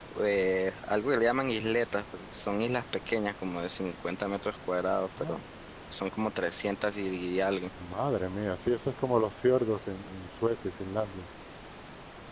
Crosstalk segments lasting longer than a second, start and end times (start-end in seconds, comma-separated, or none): none